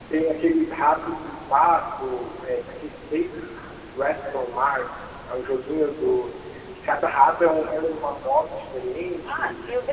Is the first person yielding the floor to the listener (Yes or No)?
Yes